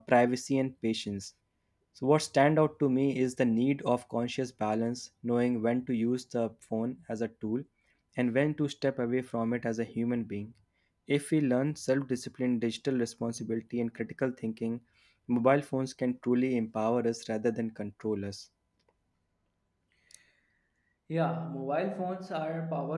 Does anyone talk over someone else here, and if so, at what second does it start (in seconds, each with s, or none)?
none